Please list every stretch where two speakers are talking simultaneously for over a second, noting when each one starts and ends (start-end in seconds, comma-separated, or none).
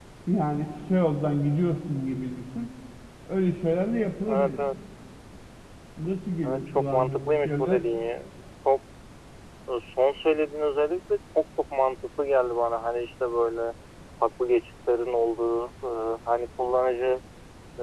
6.5-7.9